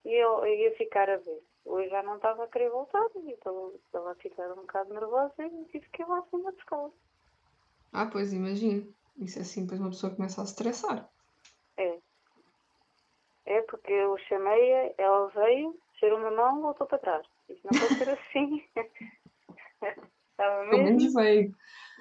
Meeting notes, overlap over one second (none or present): none